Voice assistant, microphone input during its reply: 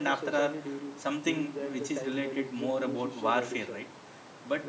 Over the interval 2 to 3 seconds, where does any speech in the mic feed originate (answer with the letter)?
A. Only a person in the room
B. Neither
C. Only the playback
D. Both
D